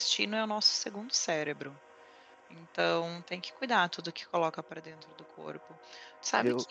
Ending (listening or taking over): listening